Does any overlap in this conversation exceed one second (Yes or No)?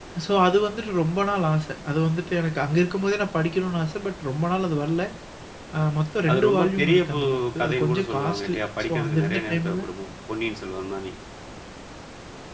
Yes